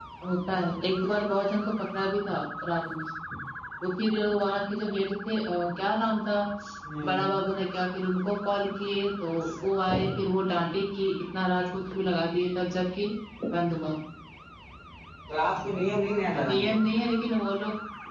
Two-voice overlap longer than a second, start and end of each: none

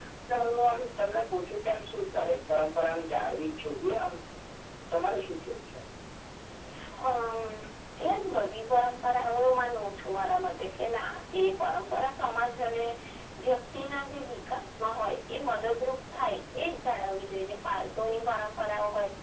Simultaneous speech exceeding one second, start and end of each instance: none

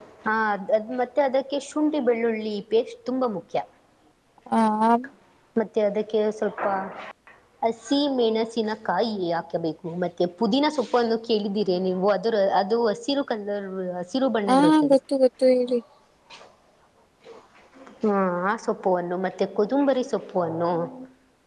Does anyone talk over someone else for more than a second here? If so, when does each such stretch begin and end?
none

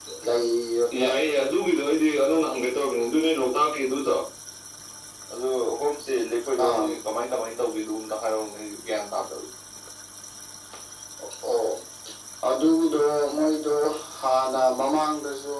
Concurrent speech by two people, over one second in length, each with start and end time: none

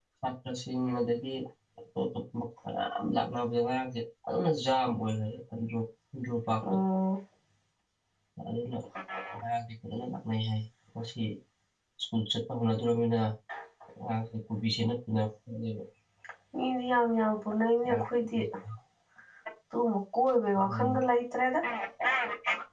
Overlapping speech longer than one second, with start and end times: none

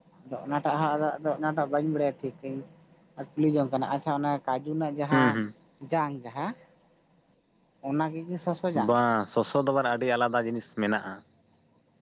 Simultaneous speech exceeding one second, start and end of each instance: none

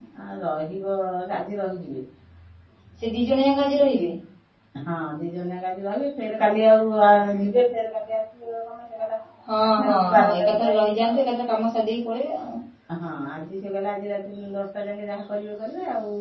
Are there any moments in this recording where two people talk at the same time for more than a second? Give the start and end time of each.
9.8-11.2

